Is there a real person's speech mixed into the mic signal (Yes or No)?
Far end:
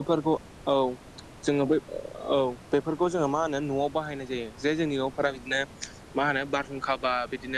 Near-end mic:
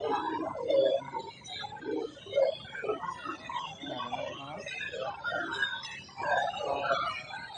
Yes